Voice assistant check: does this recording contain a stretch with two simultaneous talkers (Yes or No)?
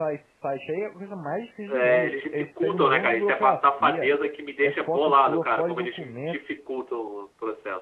Yes